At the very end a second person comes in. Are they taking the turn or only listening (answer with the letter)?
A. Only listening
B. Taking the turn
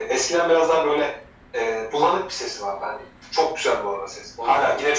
A